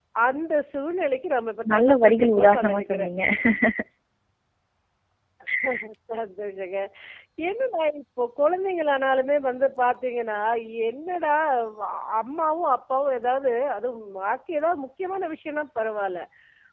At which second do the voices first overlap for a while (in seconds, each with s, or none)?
1.6 s